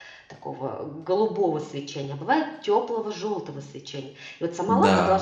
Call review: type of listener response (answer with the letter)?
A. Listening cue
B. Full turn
A